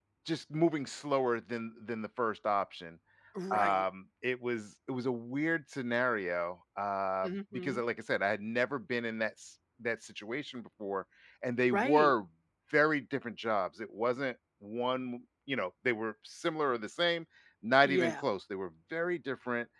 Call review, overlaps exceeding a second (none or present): none